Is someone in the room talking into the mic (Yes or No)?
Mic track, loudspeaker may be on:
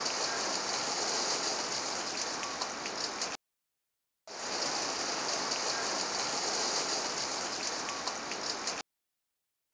No